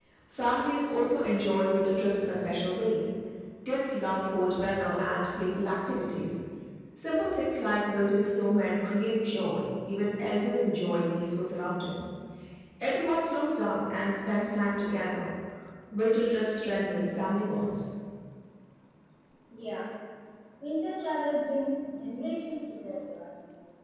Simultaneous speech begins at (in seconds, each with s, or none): none